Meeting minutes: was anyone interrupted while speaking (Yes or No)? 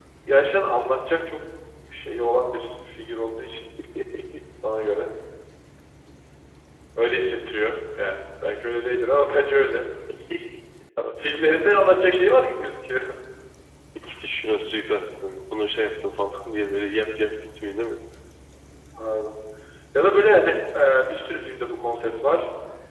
No